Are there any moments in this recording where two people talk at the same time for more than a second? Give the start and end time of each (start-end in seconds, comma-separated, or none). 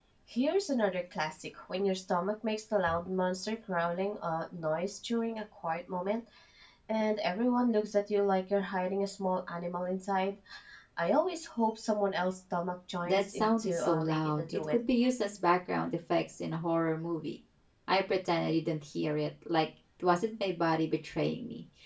13.1-14.8